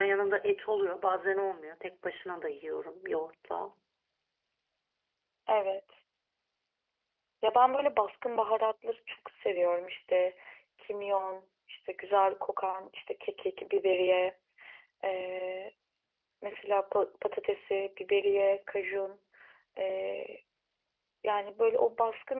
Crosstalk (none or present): none